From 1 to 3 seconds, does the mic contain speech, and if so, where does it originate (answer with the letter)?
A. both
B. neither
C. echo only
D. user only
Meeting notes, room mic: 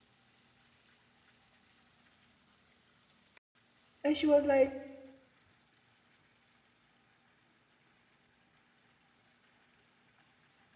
B